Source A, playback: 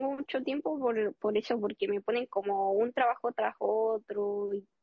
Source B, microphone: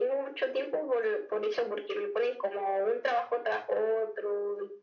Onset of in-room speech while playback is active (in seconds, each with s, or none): none